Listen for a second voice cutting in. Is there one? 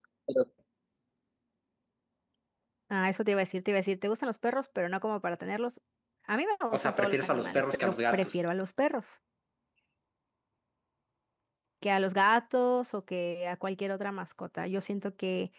Yes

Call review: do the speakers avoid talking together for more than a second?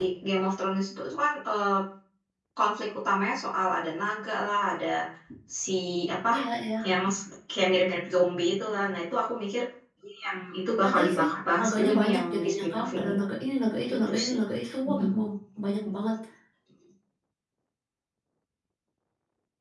No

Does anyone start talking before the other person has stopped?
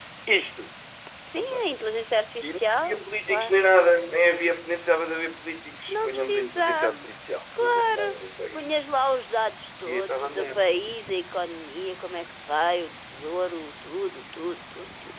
Yes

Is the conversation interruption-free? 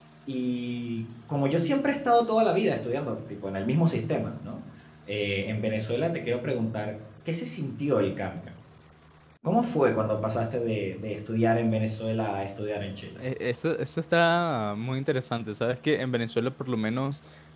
Yes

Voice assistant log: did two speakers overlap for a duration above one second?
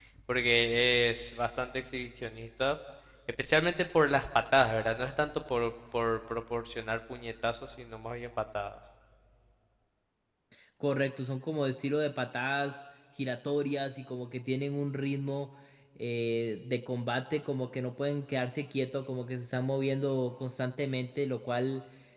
No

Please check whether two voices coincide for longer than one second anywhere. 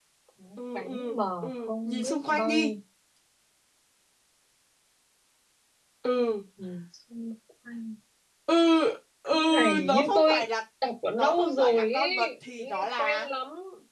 Yes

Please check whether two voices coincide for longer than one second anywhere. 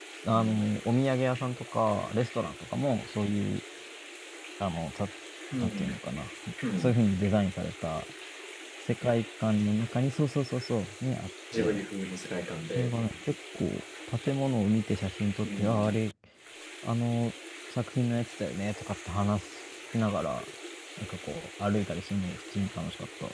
No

